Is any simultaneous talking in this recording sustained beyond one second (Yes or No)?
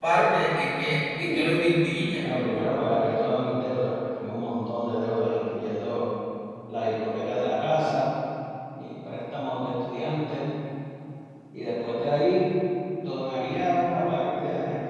No